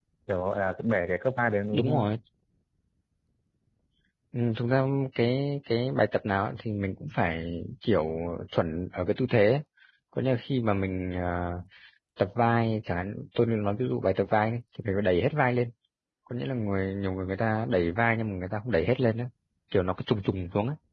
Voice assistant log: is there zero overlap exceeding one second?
Yes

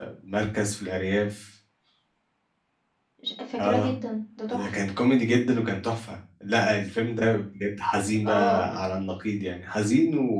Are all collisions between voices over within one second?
Yes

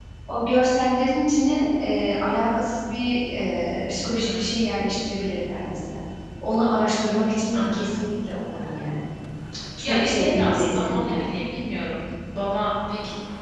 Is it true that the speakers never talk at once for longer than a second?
No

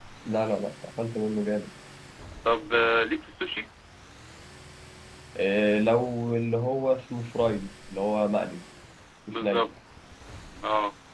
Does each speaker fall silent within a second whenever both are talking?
Yes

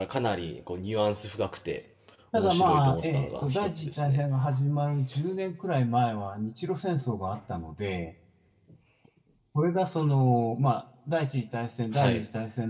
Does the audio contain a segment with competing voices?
Yes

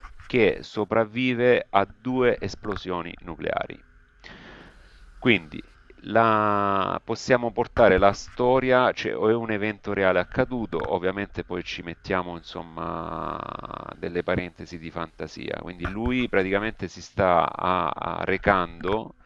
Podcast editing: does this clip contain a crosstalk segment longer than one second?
No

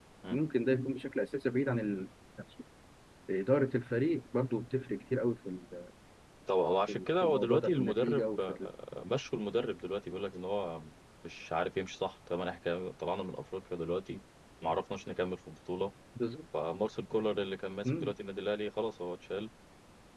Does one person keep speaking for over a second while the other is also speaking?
Yes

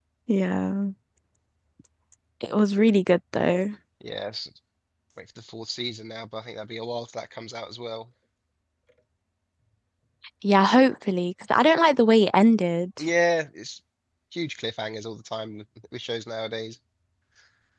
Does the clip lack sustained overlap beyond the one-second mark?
Yes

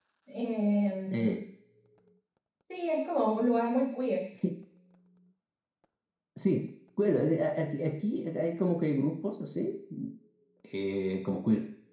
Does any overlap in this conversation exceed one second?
No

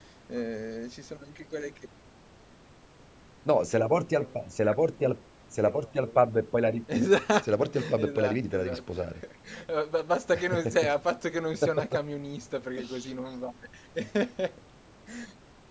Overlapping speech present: Yes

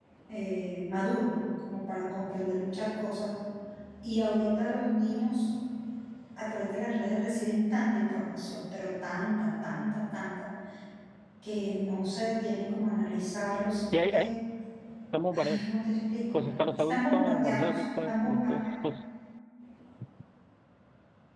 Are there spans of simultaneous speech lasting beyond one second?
Yes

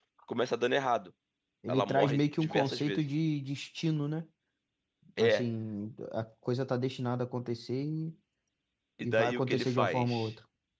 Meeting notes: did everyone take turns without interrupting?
No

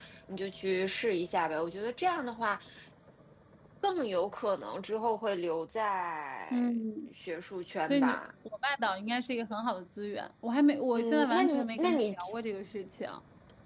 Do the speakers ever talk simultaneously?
Yes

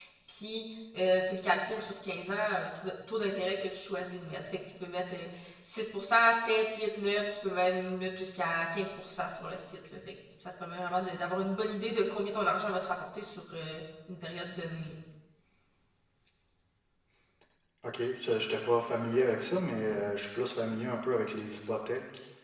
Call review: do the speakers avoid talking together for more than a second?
Yes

